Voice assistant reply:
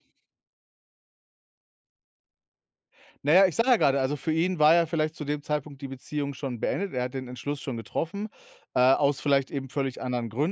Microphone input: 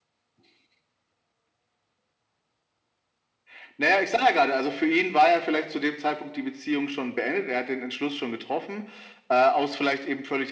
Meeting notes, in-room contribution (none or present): none